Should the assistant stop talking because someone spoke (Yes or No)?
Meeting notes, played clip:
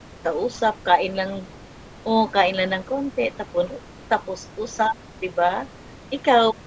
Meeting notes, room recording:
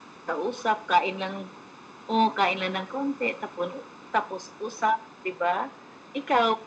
No